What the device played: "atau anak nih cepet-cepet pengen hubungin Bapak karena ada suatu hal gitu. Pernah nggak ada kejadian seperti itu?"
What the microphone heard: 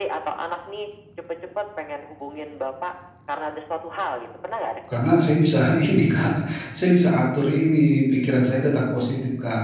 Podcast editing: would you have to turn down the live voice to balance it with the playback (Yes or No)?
Yes